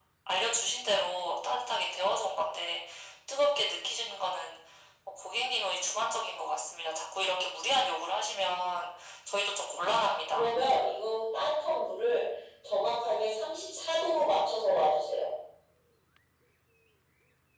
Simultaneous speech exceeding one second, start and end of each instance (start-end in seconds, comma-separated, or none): none